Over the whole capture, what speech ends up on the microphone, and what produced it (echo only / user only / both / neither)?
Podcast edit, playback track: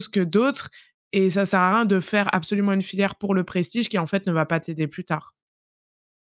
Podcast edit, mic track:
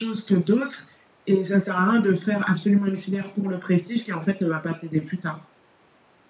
echo only